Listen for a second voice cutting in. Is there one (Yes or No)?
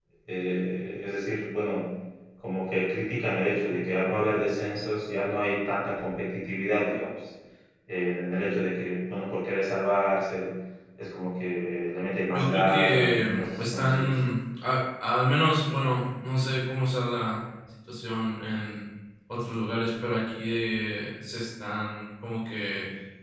Yes